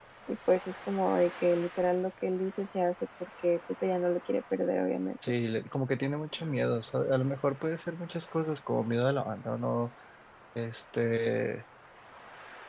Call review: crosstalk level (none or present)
none